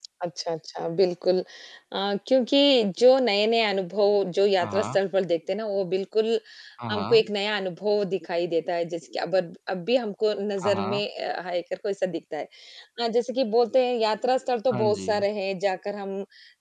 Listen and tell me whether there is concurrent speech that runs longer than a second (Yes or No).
No